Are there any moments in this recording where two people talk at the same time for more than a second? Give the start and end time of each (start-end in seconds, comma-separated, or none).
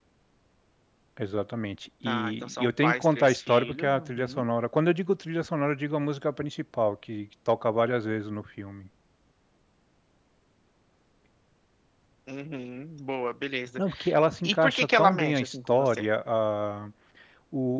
2.1-4.4, 14.4-16.0